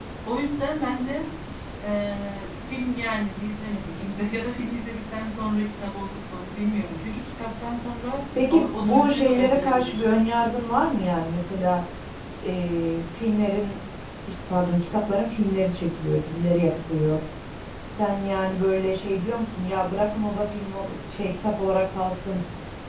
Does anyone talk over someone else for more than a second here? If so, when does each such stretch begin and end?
8.5-10.0

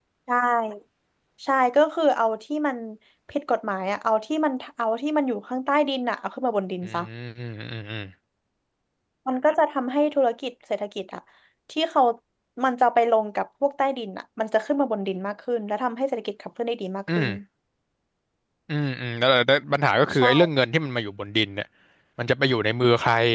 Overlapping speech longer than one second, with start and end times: none

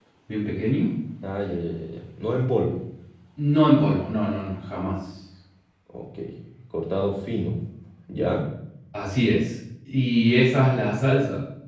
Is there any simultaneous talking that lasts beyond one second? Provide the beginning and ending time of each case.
none

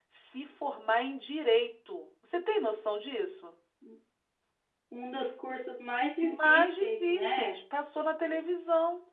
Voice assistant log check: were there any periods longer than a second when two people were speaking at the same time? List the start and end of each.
6.2-7.5

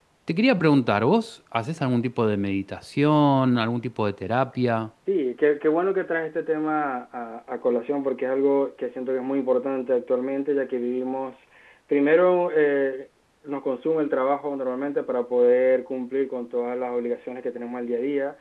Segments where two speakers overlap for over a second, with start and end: none

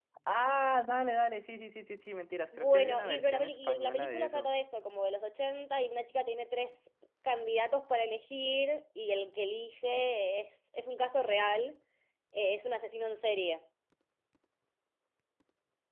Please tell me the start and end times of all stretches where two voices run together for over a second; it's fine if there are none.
2.6-4.5

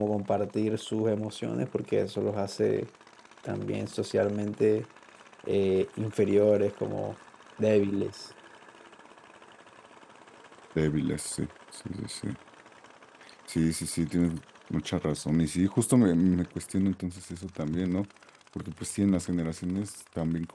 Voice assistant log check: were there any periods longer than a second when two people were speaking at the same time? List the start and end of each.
none

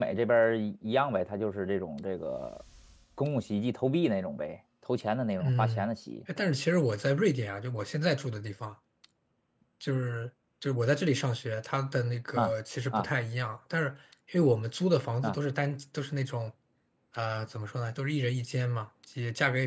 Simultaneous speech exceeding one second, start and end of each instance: none

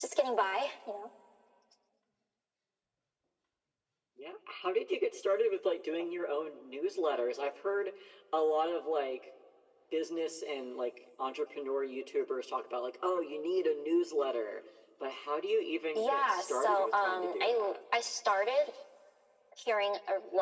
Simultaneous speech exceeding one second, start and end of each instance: 15.9-17.6

